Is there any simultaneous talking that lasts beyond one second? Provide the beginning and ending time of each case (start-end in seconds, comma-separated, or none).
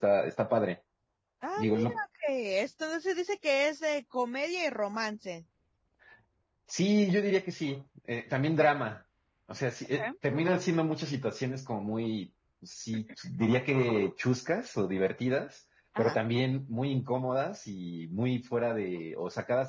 none